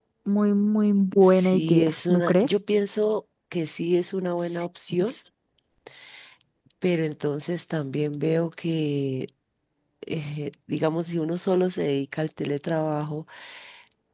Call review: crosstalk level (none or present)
present